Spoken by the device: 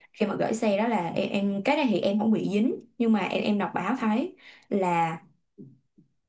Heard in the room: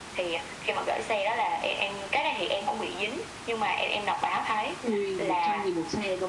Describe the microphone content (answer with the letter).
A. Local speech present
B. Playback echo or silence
A